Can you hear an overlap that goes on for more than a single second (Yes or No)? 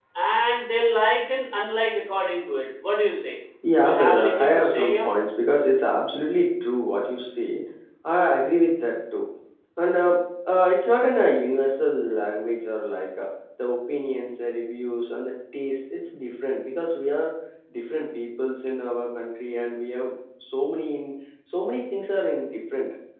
Yes